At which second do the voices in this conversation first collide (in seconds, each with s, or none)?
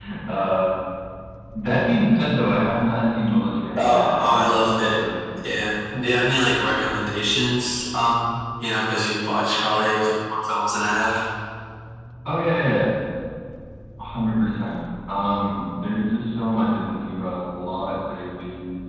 3.8 s